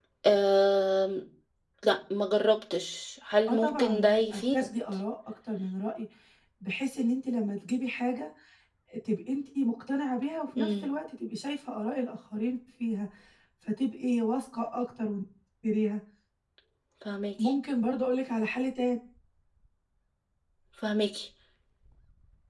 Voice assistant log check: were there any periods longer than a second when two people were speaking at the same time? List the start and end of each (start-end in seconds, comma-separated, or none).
3.5-4.7